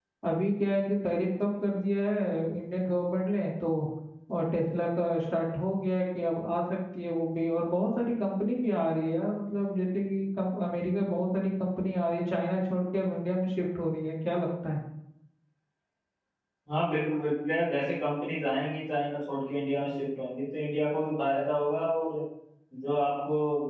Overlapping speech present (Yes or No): No